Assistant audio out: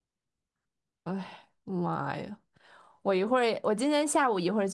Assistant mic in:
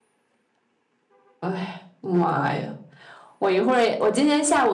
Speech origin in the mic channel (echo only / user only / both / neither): echo only